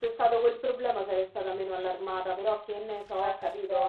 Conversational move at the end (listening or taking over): taking over